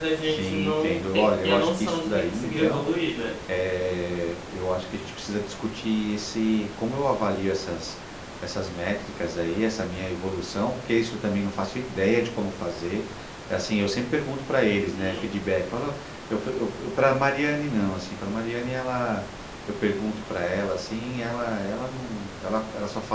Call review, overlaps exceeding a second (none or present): present